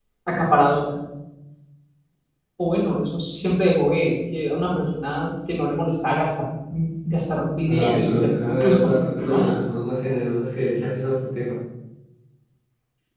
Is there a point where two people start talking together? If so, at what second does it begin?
7.7 s

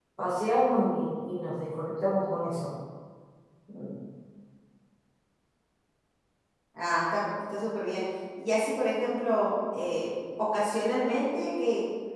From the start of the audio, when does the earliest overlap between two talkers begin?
none

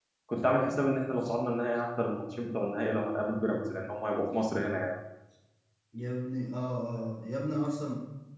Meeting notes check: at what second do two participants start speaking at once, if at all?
none

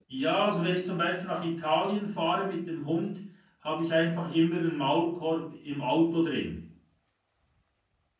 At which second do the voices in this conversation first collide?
none

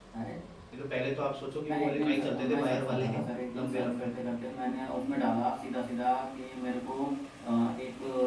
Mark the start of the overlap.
1.7 s

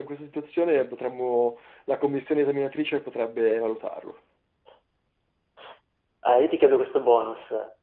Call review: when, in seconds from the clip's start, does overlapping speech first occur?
none

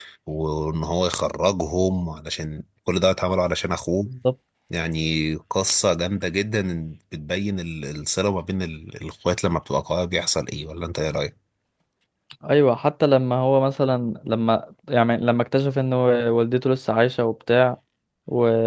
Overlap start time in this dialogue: none

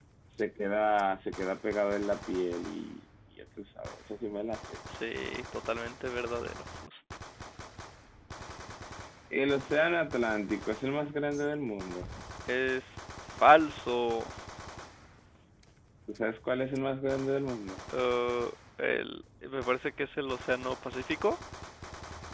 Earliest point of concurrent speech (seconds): none

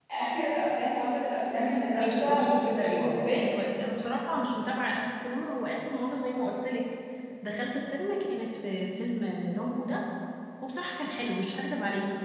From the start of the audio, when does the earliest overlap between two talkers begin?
2.0 s

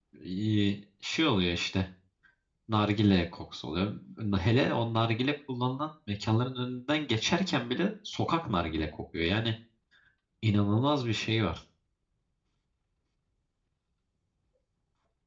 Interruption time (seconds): none

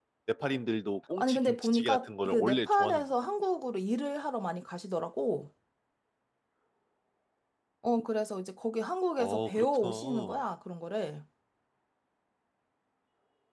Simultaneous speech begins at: 1.2 s

